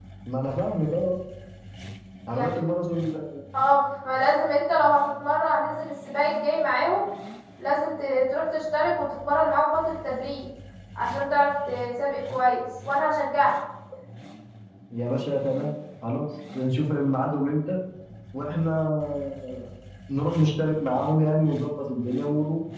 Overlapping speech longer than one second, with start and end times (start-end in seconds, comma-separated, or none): none